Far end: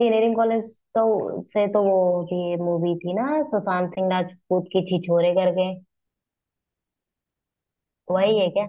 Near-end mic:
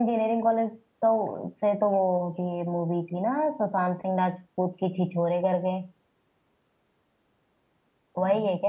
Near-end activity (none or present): none